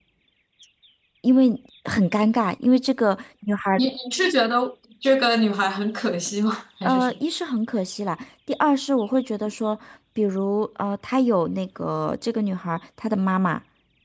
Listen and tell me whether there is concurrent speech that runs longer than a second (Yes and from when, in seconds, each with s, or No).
No